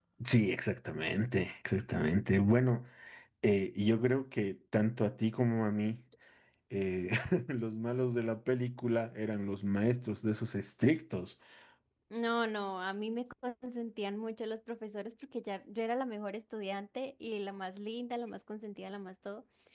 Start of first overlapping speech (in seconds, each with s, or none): none